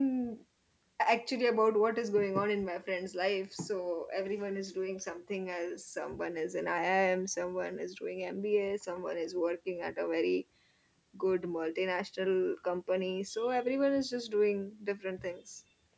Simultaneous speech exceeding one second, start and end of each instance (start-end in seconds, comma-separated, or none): none